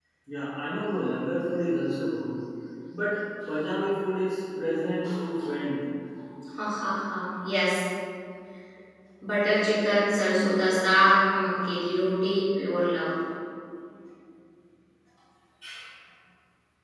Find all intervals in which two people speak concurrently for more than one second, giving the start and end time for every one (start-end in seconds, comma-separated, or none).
none